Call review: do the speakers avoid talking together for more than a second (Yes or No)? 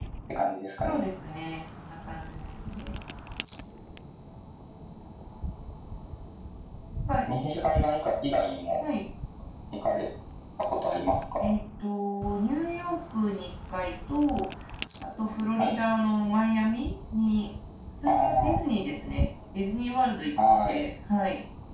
Yes